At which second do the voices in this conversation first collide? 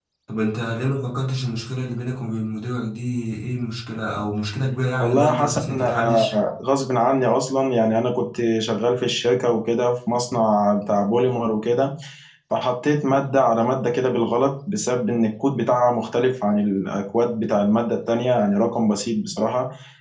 5.0 s

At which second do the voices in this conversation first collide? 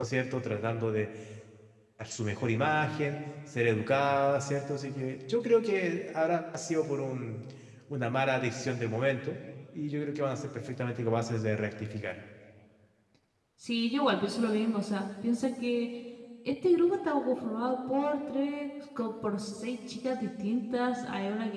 none

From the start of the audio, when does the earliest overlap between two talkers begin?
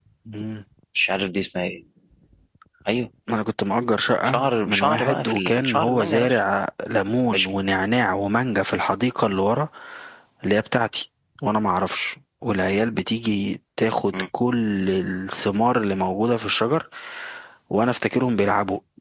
4.2 s

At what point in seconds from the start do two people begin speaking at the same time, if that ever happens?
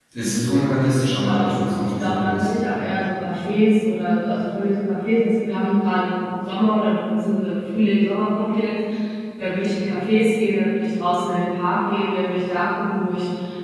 1.3 s

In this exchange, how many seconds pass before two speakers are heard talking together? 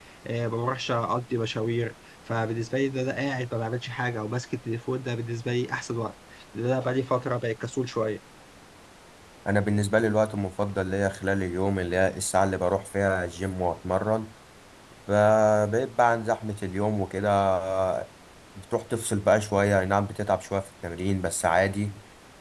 none

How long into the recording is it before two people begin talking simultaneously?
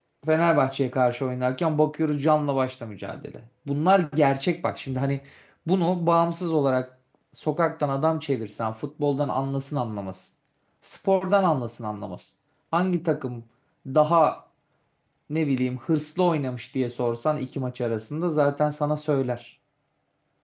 none

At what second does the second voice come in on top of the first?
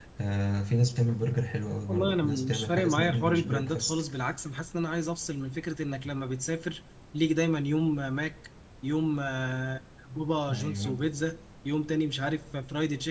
1.9 s

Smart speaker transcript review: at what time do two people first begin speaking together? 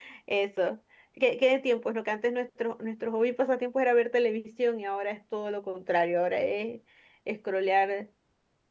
none

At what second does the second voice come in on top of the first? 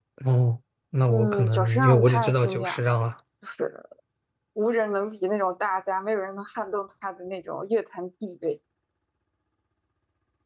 1.1 s

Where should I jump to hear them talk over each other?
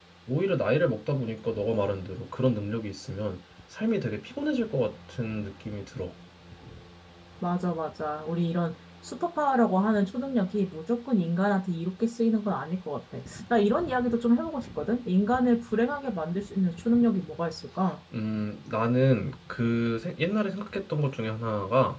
none

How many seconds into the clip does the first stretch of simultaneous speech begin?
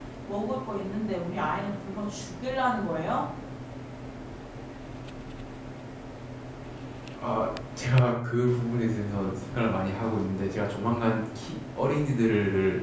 none

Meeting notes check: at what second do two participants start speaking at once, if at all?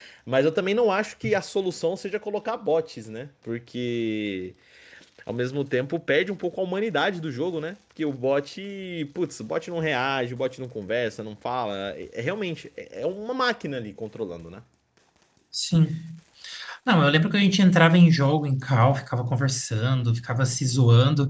none

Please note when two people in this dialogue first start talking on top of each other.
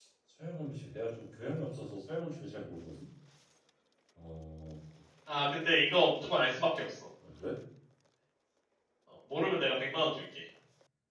none

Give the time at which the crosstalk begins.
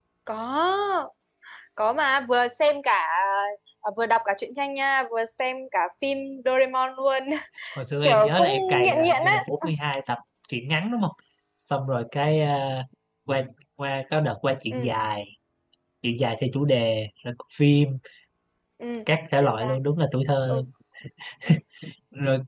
8.0 s

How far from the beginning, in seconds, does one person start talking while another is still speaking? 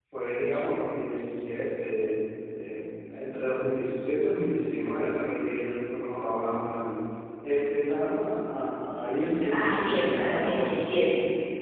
9.5 s

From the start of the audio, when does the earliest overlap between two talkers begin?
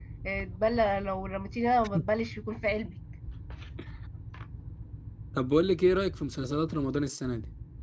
none

